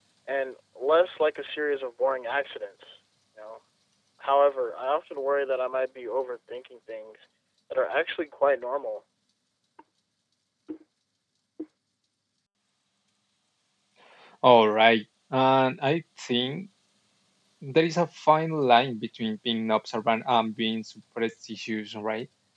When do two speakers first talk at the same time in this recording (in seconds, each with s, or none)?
none